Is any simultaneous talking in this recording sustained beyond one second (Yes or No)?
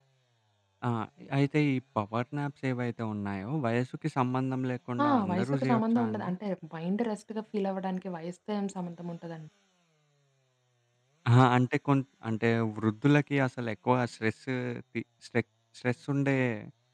Yes